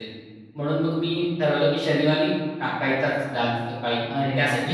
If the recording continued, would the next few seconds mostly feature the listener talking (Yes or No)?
Yes